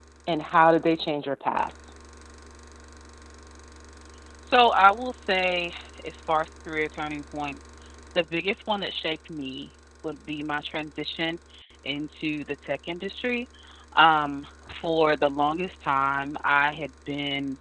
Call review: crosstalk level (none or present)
none